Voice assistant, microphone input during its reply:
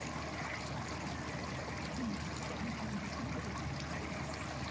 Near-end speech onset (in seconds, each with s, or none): none